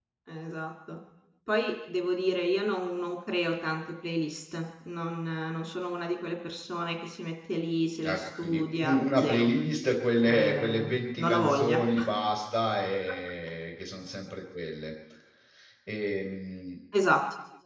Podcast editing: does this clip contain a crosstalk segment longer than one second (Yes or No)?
Yes